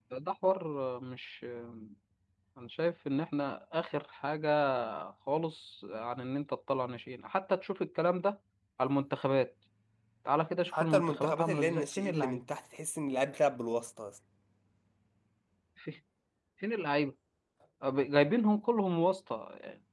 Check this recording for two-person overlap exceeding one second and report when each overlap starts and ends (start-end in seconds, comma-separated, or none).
10.8-12.4